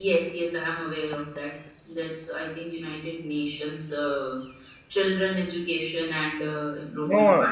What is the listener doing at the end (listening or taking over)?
taking over